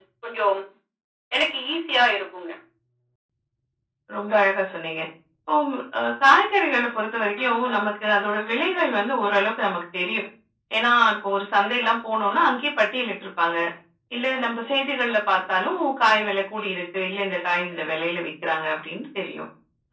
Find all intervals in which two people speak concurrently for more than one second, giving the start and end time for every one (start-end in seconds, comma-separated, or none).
none